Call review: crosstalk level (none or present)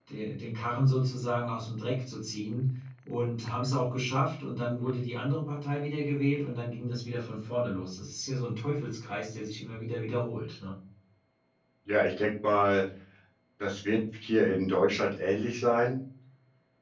none